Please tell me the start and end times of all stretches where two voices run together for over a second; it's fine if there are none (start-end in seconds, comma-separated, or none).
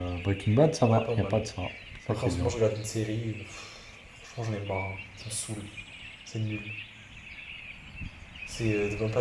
none